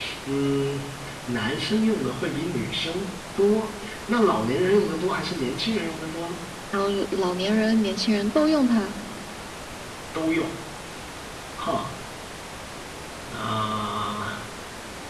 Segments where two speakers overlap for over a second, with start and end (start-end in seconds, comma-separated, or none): none